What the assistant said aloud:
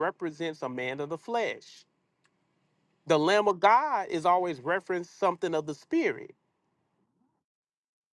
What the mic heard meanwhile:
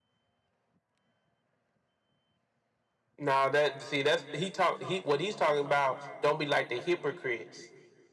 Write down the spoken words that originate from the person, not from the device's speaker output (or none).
No, that see, that's he talk. He what he's talking about. Don't be like the hypocrites